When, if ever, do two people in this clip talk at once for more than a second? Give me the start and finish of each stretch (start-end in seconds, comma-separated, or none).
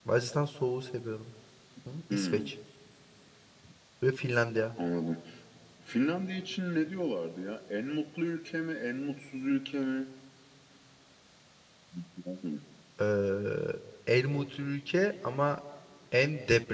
none